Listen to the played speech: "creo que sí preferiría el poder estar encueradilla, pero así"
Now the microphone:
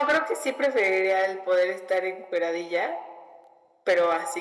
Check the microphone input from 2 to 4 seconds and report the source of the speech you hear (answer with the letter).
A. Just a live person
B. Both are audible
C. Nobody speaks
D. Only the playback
D